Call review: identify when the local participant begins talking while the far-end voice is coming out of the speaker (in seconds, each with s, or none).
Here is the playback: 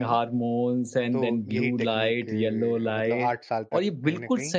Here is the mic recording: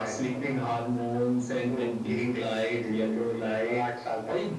none